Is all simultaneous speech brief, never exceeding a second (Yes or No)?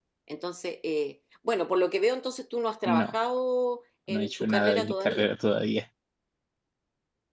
No